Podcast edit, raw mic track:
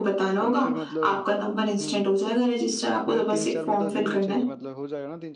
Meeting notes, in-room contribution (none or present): present